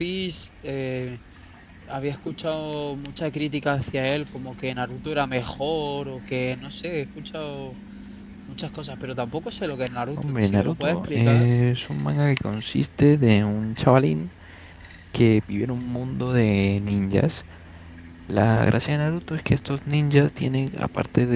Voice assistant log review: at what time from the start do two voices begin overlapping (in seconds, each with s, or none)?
10.2 s